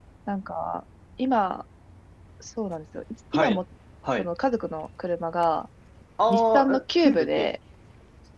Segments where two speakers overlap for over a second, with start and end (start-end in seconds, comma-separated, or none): 6.3-7.5